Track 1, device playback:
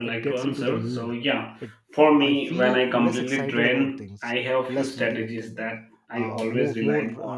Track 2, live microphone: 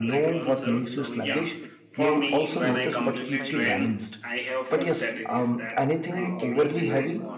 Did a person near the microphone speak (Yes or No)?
Yes